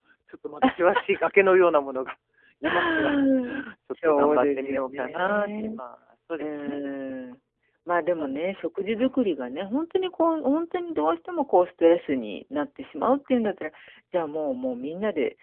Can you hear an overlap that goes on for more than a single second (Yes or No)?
Yes